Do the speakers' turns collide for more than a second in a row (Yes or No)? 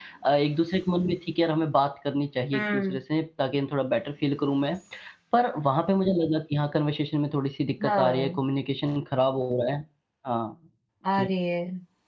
No